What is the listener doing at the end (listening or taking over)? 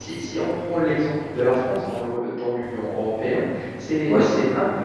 listening